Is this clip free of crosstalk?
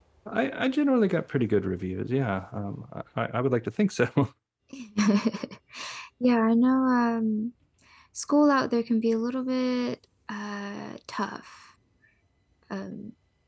Yes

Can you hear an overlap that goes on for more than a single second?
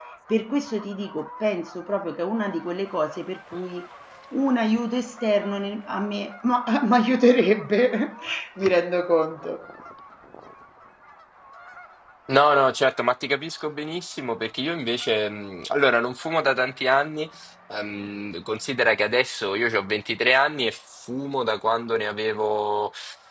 No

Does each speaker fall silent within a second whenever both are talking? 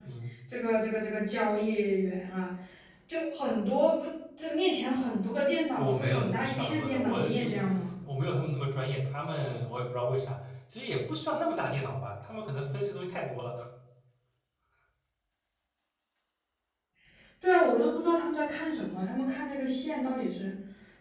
No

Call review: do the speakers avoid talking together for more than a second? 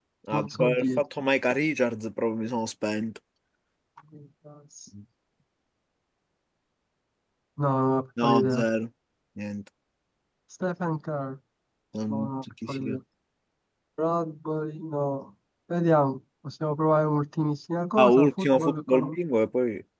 No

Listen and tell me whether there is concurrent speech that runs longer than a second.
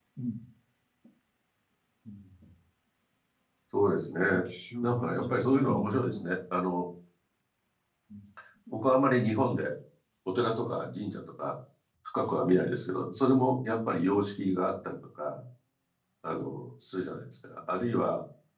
Yes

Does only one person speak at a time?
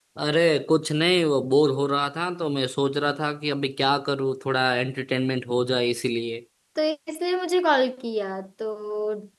Yes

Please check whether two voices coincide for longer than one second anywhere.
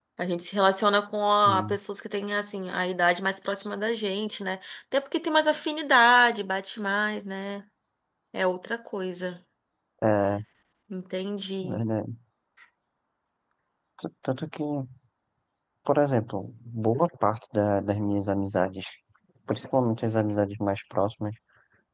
No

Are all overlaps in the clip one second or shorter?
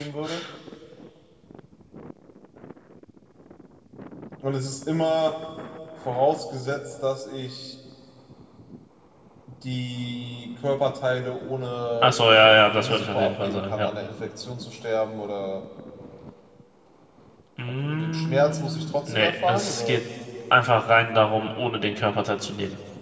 No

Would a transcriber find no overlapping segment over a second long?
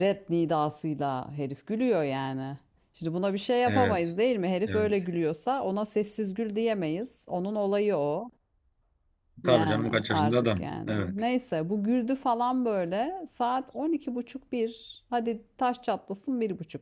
No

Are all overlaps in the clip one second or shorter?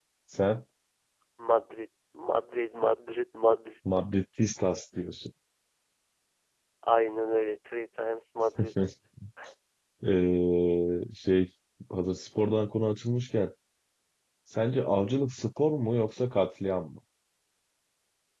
Yes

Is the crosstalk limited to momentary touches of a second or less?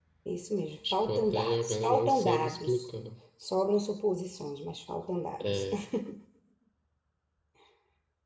No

